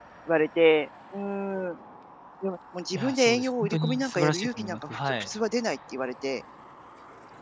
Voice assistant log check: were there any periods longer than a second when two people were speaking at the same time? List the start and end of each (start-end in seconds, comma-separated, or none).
2.9-5.3